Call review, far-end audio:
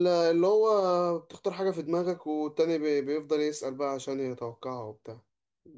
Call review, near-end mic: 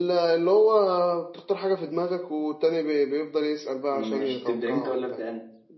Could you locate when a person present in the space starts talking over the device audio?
3.9 s

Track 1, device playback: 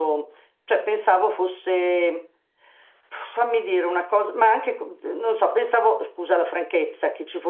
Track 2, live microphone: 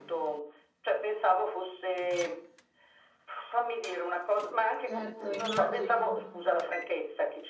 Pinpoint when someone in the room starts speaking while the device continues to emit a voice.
4.8 s

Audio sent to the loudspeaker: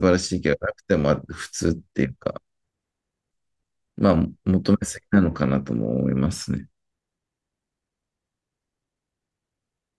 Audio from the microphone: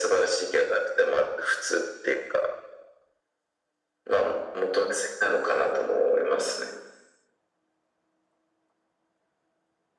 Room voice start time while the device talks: none

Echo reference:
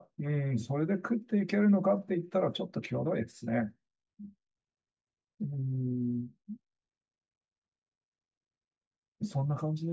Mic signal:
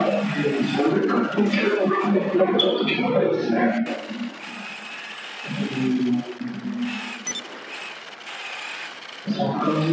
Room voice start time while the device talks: none

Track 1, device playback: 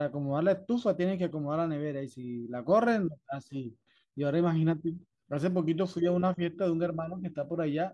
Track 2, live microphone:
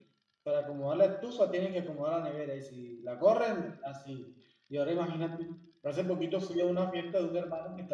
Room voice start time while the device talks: none

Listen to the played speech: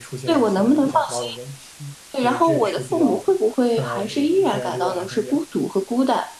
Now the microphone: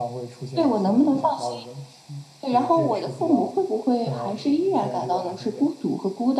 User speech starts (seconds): none

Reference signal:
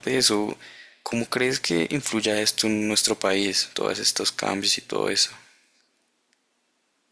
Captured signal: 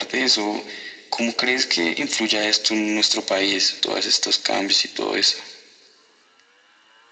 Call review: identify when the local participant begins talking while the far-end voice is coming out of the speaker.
none

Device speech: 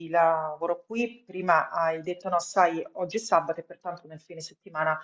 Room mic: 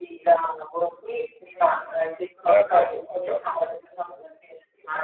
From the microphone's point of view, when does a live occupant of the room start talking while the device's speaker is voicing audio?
2.4 s

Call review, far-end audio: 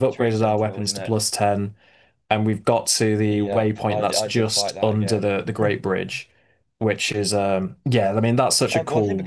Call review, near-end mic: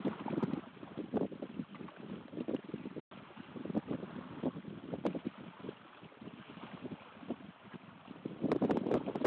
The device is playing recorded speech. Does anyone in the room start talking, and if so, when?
none

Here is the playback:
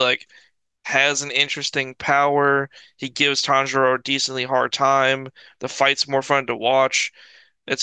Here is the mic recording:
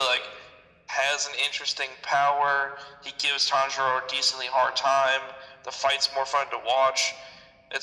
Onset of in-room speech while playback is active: none

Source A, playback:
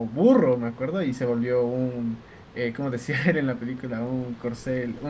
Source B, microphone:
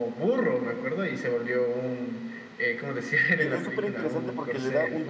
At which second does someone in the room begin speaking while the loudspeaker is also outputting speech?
3.4 s

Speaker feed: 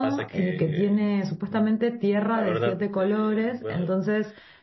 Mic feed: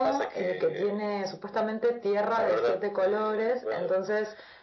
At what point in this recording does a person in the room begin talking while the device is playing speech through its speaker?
none

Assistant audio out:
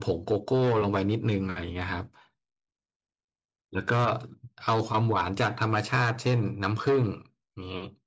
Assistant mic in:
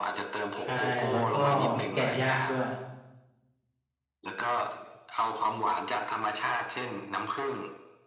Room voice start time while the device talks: 0.6 s

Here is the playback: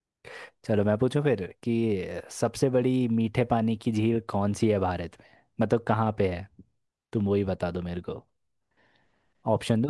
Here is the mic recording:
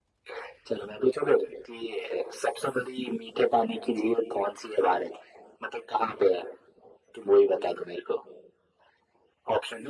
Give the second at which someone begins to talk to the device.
none

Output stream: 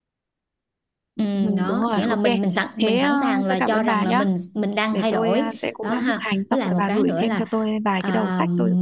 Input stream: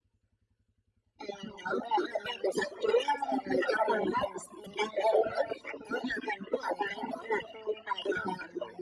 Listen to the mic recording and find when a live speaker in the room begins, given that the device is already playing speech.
none

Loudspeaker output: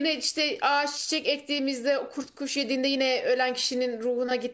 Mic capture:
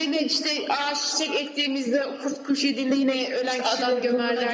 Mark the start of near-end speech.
3.4 s

